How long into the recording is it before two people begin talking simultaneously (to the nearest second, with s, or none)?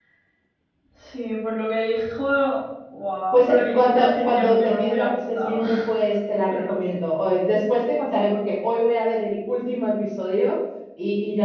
3 s